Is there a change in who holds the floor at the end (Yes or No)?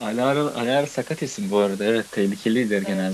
Yes